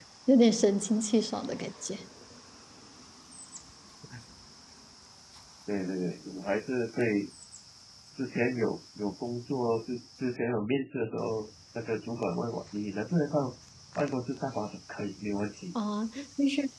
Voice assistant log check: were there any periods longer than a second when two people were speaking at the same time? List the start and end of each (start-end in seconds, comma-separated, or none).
none